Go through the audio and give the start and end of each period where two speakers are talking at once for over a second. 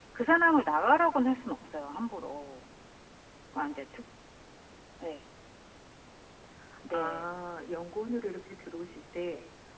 none

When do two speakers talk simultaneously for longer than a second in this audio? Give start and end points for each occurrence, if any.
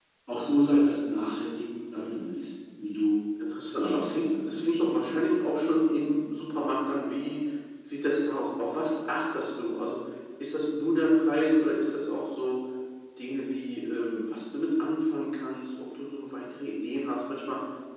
3.7-5.0

